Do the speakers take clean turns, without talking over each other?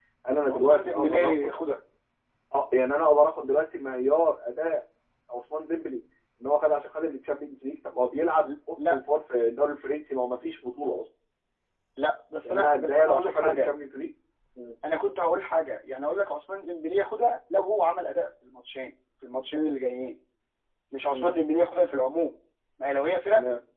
No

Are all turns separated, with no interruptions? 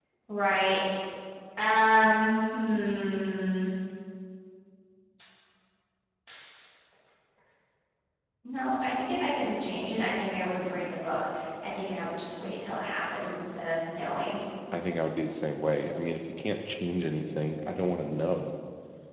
Yes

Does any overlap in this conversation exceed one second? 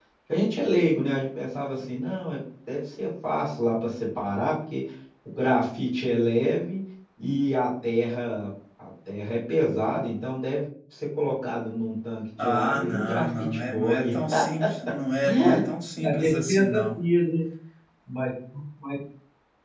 Yes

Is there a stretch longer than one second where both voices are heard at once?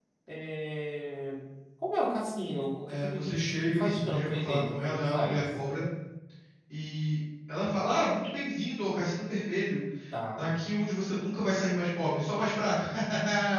Yes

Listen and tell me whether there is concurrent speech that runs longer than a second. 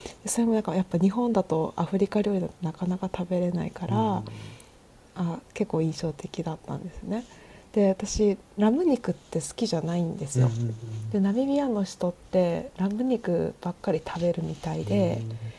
No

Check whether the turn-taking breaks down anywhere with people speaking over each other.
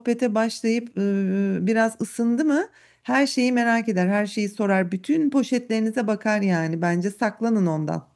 No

